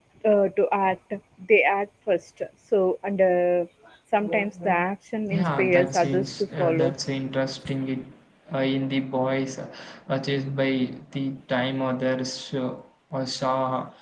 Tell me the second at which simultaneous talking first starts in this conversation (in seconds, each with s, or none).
5.3 s